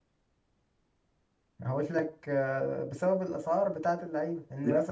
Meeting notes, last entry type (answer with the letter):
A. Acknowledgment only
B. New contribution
B